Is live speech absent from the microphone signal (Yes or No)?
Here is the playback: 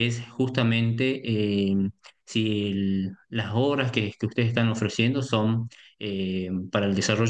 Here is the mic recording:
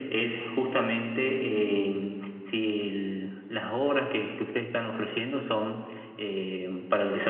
Yes